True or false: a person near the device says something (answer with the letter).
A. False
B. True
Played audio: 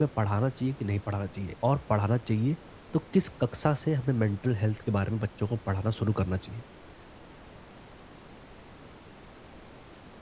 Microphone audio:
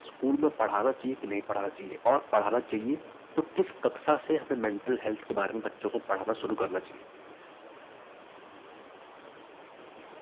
A